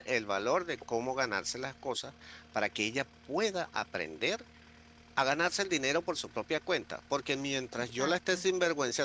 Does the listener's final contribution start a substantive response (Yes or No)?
No